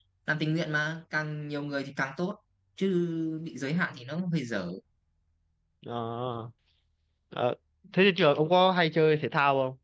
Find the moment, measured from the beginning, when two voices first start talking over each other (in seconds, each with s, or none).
none